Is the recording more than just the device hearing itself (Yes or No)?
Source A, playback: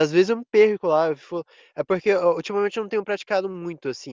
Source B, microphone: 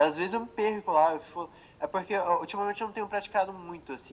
No